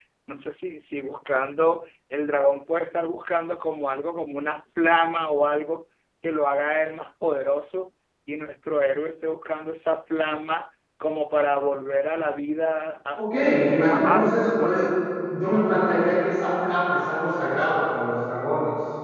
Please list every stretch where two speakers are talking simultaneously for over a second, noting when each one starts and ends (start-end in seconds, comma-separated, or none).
13.2-14.9